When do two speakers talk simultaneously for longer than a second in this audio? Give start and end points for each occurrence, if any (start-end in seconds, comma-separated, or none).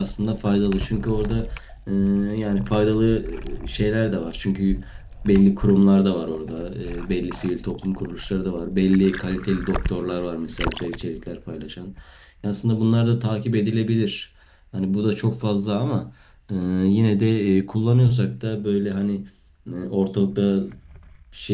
none